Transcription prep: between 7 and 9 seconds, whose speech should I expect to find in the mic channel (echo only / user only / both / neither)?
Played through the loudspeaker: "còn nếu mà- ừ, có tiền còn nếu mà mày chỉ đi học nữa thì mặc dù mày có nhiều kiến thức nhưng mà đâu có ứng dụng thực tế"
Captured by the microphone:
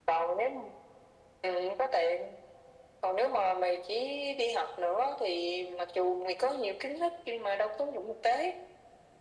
echo only